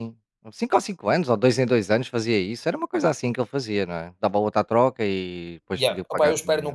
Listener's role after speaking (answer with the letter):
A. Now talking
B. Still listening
A